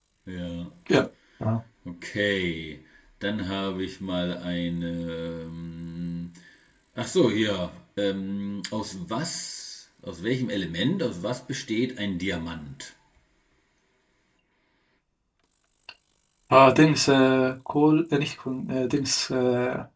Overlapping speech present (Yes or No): No